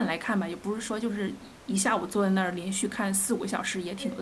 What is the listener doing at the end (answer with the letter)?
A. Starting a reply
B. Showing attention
A